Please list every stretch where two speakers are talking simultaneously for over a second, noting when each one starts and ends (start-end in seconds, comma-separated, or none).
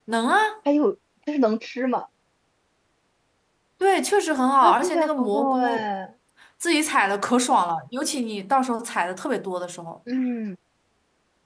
4.6-5.9